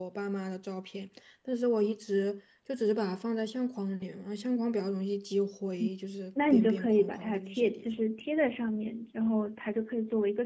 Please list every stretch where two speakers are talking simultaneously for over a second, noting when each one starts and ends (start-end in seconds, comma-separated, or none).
6.5-7.9